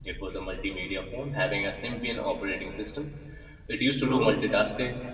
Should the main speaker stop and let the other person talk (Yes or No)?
No